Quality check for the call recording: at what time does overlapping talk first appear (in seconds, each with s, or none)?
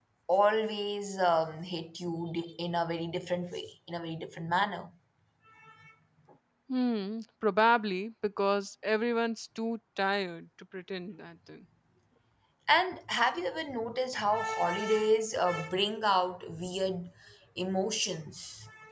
none